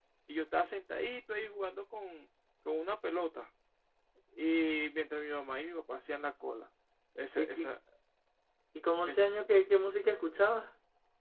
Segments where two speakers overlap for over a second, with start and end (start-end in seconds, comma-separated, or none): none